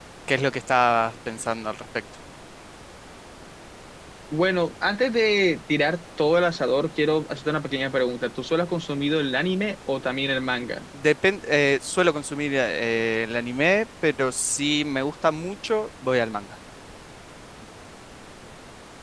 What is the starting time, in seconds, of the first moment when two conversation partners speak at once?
none

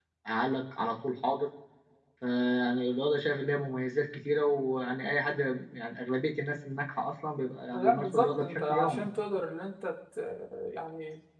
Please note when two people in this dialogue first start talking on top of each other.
7.7 s

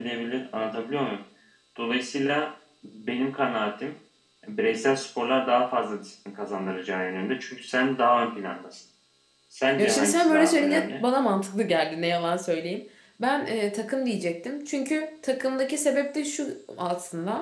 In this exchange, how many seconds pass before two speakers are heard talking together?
9.8 s

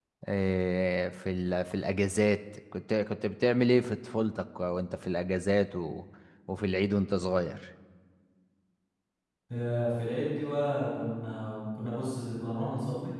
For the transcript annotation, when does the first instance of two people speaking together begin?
none

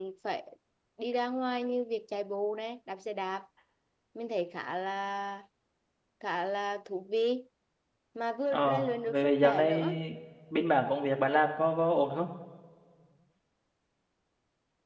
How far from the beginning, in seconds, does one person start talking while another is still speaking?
8.5 s

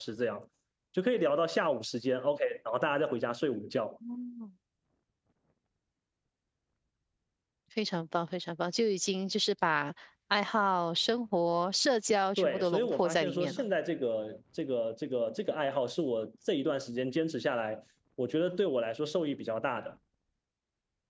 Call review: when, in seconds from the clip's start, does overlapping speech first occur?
12.4 s

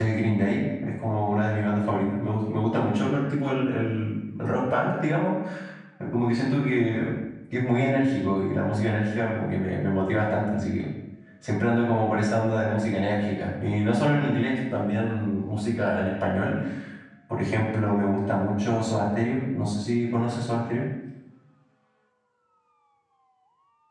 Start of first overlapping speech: none

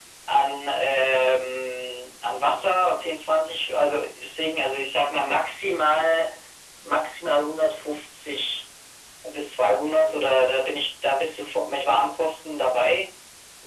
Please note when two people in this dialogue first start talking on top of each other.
none

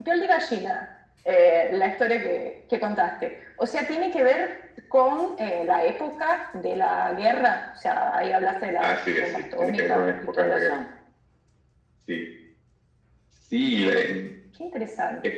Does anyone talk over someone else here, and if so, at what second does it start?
8.8 s

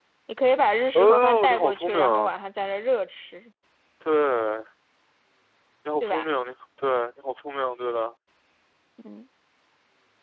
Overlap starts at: 0.9 s

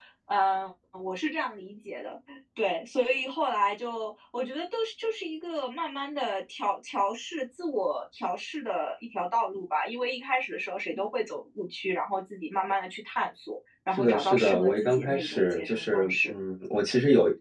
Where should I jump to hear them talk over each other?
13.9 s

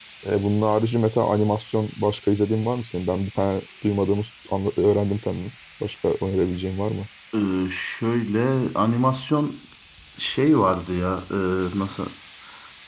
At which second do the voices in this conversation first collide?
none

